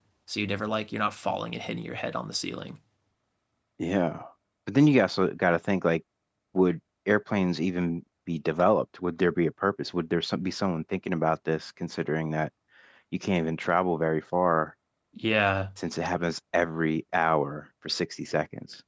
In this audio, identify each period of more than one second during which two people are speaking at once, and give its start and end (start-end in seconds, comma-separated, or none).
none